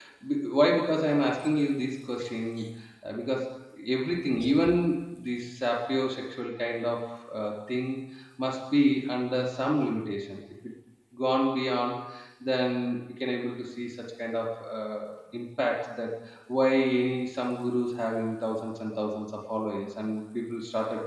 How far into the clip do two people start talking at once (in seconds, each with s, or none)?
none